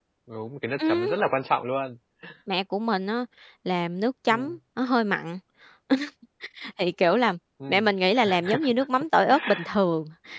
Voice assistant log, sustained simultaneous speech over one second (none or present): none